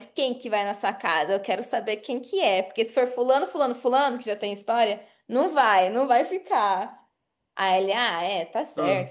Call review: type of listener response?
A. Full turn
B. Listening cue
B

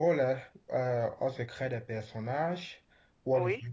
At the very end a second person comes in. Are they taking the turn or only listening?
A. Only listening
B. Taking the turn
A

